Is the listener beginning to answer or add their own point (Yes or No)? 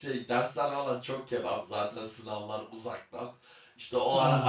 No